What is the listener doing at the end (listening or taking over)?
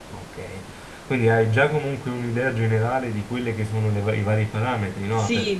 taking over